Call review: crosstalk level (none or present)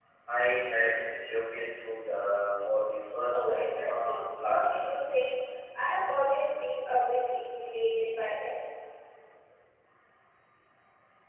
present